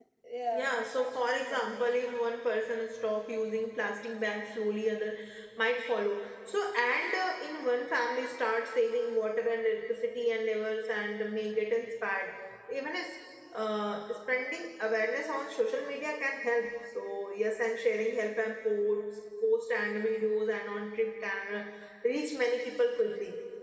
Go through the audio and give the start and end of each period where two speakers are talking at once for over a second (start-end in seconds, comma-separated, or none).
0.6-1.9